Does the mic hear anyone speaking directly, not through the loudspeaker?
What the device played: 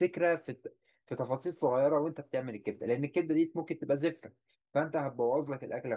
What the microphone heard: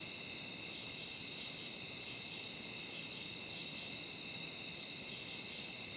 No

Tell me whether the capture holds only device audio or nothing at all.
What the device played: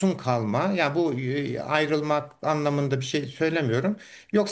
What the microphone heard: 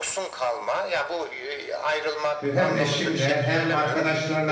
No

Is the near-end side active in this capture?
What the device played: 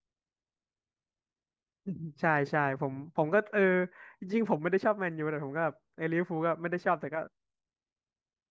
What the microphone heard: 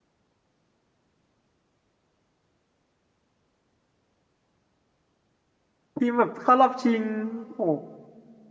Yes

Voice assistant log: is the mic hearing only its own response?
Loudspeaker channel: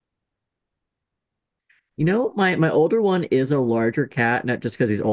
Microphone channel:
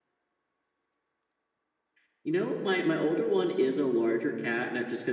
Yes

